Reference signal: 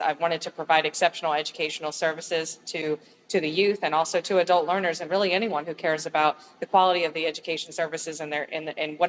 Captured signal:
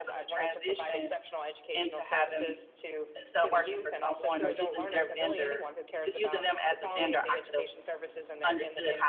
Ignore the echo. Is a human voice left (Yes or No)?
Yes